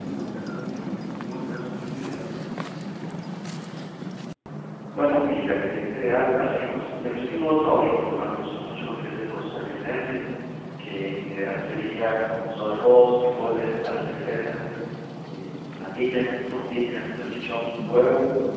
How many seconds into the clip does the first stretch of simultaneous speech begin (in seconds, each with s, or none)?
none